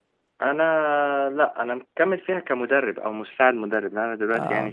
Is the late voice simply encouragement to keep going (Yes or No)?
Yes